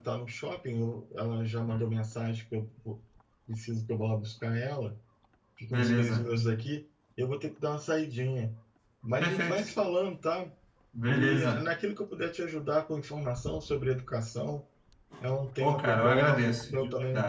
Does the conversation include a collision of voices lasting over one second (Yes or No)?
Yes